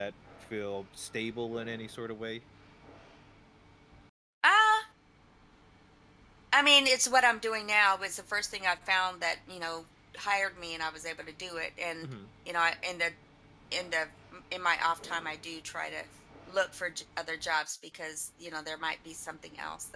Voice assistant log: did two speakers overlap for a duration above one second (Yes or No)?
No